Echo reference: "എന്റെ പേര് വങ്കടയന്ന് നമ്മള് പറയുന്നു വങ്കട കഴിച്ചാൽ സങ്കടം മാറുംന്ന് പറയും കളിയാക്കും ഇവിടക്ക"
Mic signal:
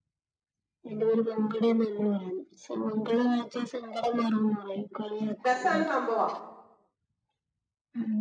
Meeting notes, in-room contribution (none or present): present